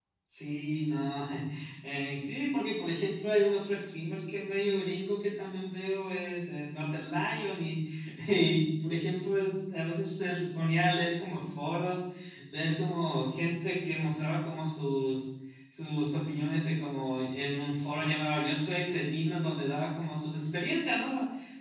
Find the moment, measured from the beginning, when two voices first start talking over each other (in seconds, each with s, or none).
none